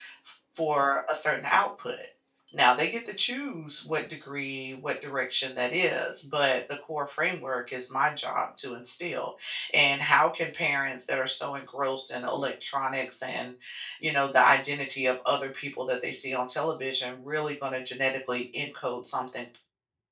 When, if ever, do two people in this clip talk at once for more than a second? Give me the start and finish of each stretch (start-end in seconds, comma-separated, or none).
none